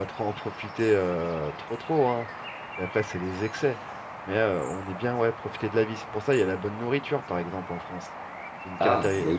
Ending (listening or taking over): taking over